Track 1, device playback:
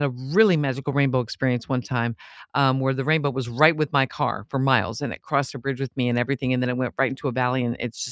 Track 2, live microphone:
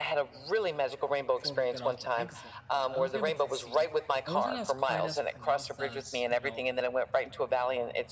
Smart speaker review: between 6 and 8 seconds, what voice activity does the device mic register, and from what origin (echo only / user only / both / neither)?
both